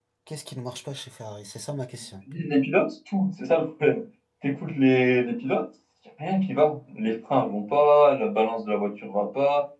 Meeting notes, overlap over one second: none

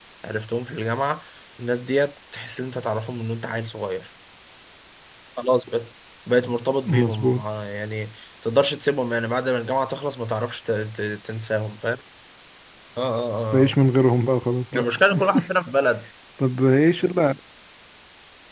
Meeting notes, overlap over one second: none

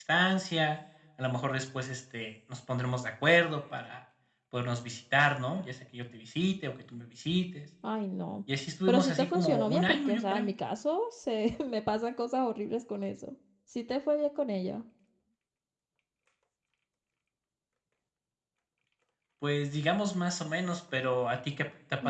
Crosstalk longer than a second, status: present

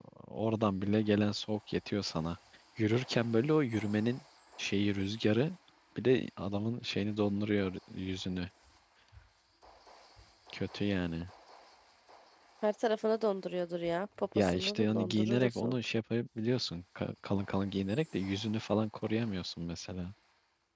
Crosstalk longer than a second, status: present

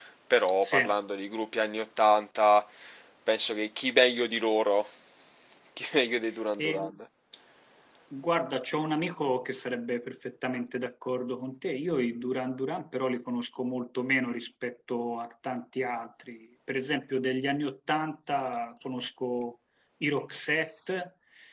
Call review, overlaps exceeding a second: none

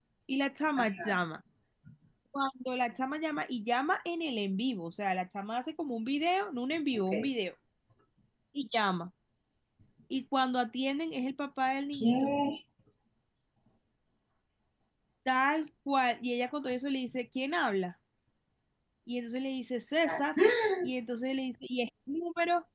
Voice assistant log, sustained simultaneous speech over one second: none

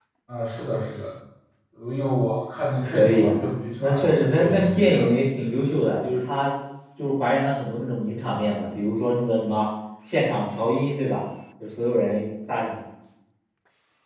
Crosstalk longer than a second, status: present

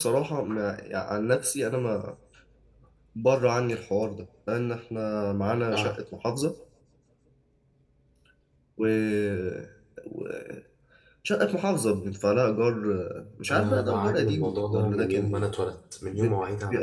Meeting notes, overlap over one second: present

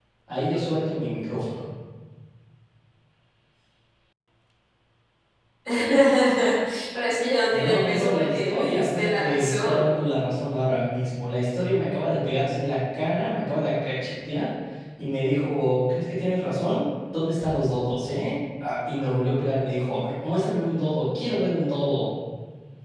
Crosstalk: present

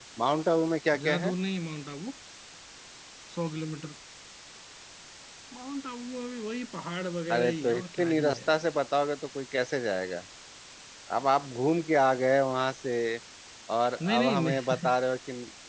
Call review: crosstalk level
present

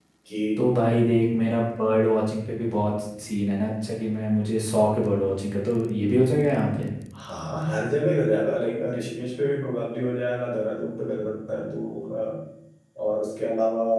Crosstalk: none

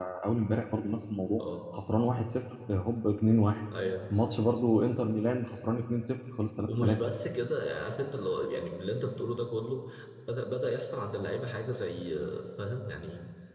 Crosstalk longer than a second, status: none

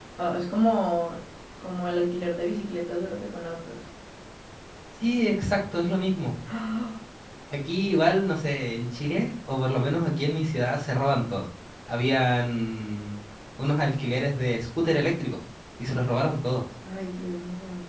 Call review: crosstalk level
none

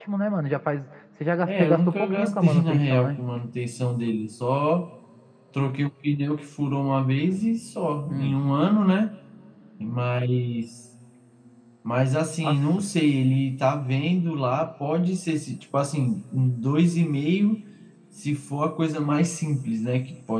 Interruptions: present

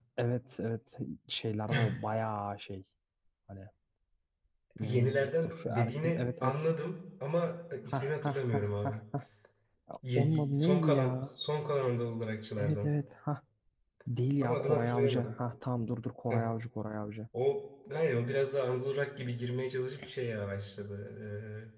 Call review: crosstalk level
present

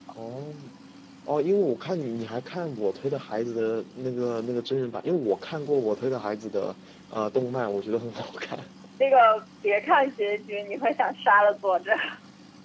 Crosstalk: none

